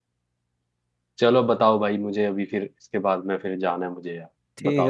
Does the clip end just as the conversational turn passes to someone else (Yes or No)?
Yes